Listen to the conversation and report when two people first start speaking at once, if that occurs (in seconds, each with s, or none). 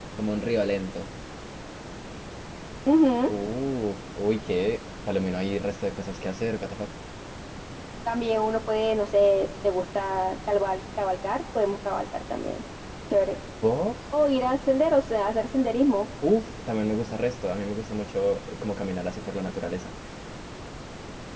none